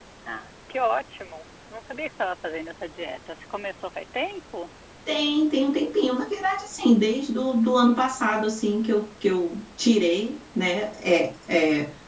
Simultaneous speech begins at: none

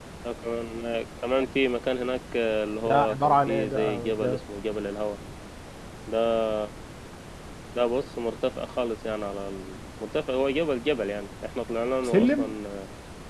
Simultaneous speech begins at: 2.9 s

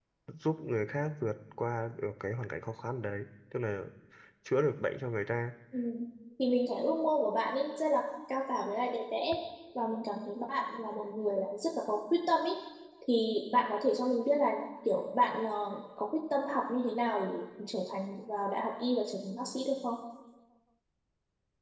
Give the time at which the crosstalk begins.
none

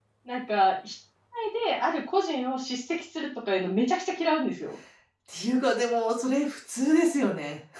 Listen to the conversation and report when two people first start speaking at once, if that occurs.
none

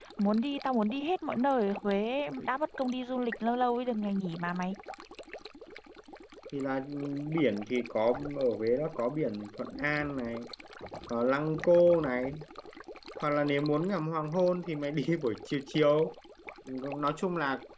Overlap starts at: none

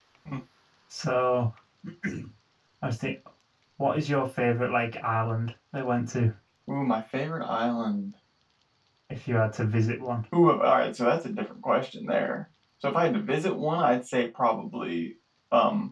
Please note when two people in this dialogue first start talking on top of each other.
none

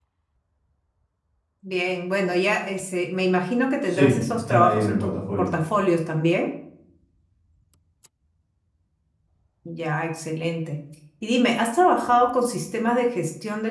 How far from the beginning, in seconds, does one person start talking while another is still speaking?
3.9 s

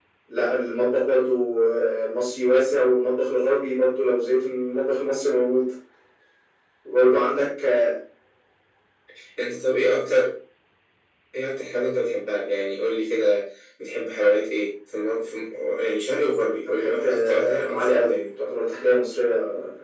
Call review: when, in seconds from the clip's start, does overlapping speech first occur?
16.6 s

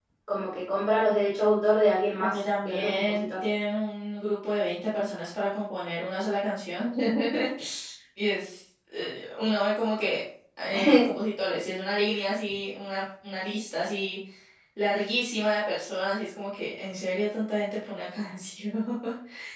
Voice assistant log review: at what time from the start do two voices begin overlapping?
2.2 s

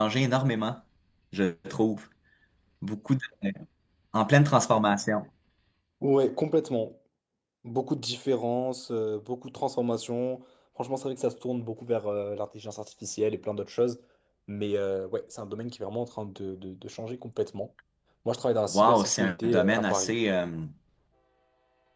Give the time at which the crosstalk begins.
18.7 s

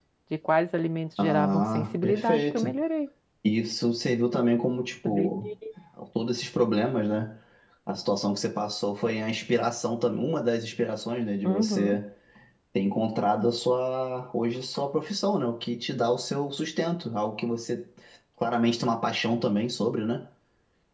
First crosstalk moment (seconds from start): 1.2 s

